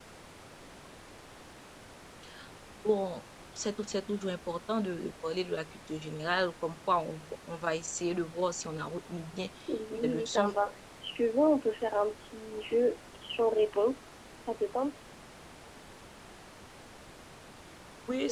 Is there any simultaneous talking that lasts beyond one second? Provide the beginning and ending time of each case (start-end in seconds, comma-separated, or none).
none